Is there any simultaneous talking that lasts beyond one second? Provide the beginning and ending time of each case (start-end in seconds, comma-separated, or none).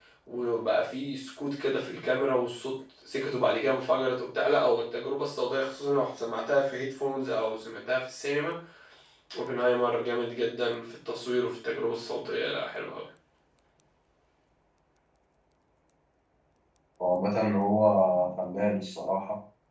none